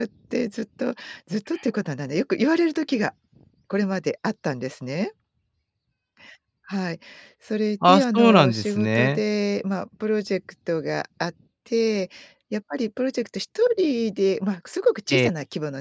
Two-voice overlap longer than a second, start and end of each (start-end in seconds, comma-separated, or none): 7.9-9.2